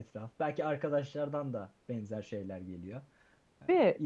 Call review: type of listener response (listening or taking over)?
listening